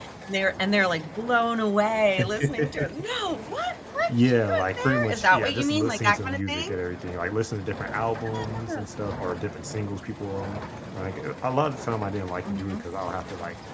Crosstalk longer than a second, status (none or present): present